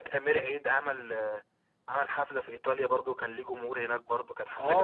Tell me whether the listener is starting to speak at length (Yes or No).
Yes